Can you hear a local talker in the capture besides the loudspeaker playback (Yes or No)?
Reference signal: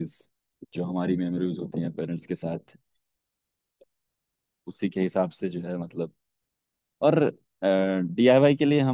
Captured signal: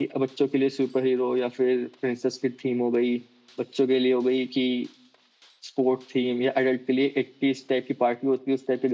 Yes